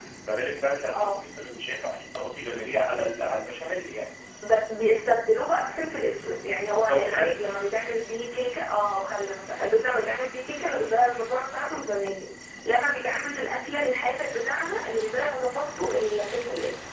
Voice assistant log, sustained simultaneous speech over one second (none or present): none